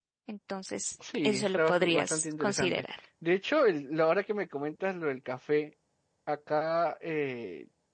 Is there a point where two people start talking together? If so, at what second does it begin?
1.2 s

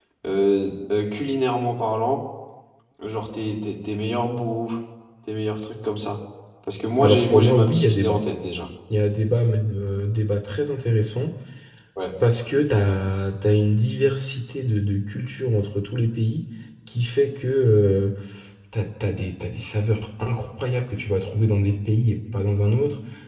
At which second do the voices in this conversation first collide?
7.0 s

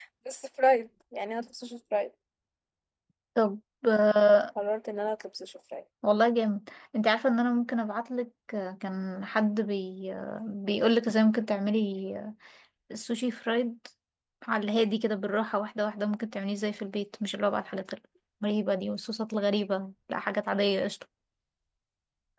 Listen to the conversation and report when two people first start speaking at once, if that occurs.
none

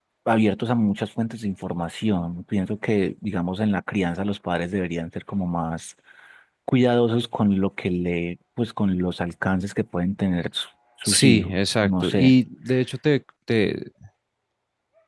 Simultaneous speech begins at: 11.0 s

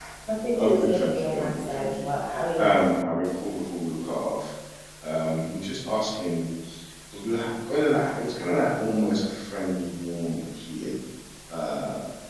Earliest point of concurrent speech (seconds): 0.6 s

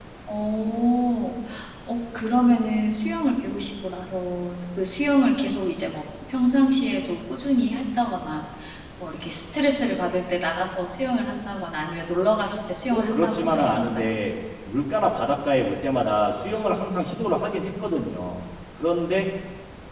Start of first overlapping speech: 12.9 s

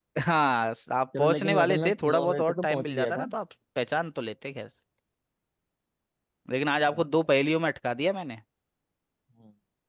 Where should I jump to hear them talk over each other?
1.2 s

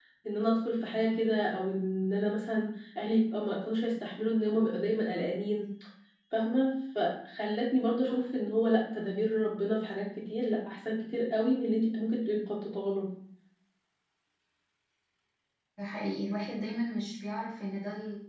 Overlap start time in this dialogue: none

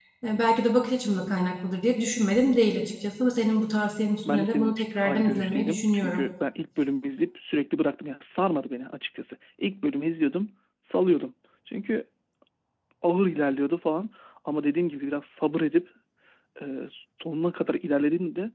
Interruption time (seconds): 4.2 s

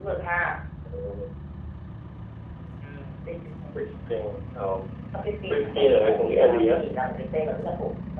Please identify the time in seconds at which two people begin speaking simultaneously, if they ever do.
5.5 s

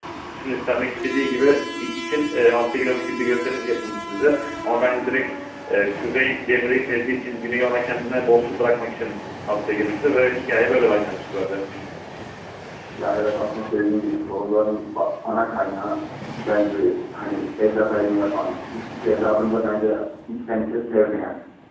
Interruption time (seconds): none

